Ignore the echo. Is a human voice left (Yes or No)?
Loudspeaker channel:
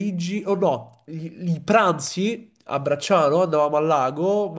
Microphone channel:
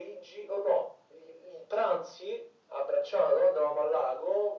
No